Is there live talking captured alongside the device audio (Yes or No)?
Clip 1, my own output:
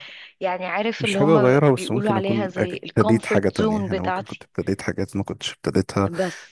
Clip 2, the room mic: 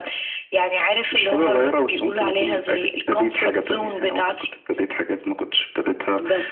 No